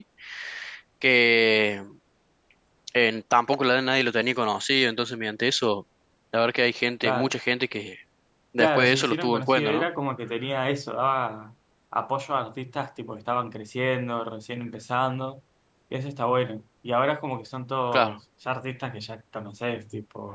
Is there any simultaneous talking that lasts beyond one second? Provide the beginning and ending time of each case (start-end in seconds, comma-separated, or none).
8.6-9.9